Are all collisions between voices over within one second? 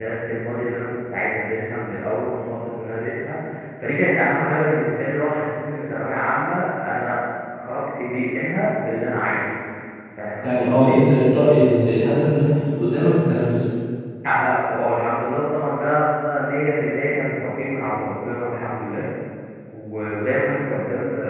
Yes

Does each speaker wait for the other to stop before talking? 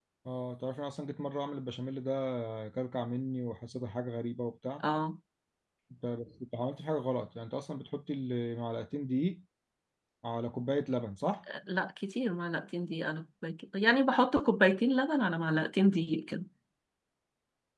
Yes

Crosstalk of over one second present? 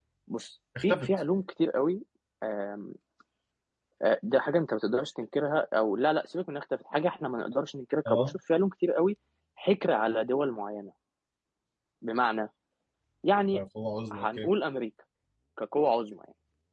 No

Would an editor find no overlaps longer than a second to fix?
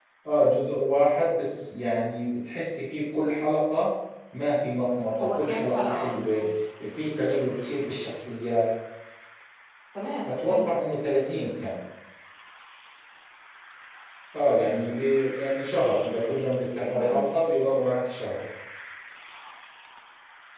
No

